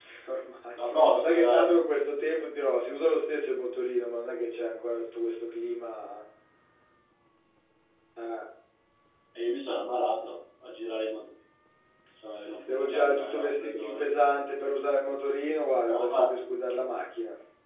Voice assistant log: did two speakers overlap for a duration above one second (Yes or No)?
Yes